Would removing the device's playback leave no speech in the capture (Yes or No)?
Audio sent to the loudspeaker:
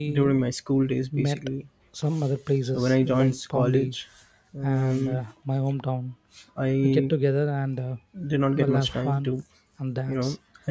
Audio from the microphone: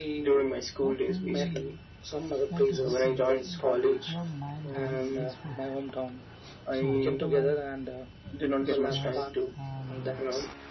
No